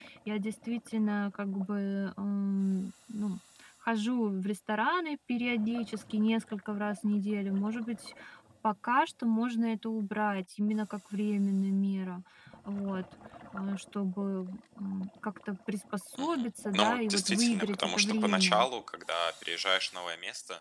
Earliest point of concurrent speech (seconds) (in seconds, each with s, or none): 16.1 s